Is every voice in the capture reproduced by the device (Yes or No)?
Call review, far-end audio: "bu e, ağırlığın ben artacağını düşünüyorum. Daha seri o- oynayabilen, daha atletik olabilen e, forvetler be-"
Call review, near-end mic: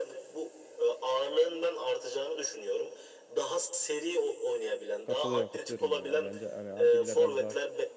No